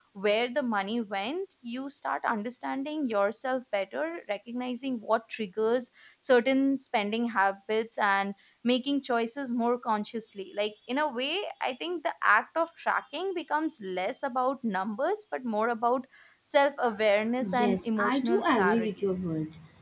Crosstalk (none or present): present